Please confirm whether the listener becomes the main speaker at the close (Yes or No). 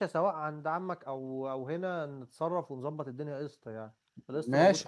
Yes